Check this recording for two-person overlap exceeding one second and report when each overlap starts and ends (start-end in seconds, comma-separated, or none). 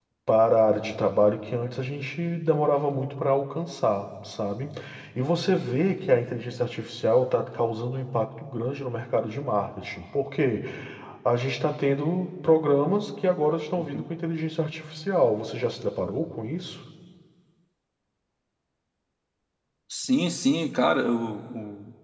none